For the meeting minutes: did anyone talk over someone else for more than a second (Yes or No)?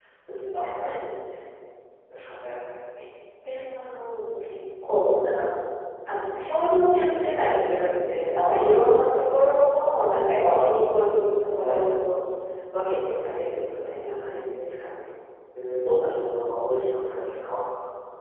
Yes